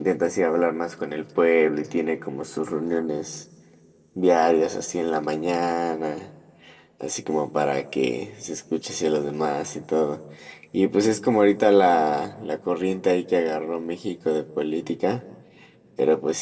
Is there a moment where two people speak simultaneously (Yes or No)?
No